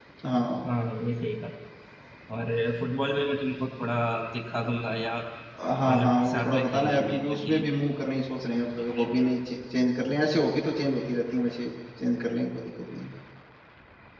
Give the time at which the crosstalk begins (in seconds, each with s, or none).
5.8 s